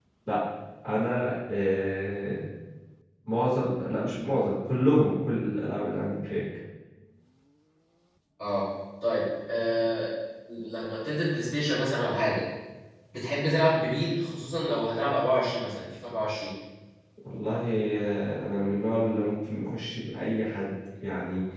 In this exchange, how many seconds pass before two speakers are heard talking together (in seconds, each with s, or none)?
none